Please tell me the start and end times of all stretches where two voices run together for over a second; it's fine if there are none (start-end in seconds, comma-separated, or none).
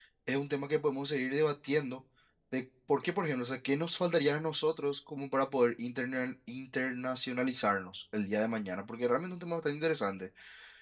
none